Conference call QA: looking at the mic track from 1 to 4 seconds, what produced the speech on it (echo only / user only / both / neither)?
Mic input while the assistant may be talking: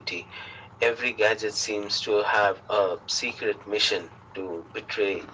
echo only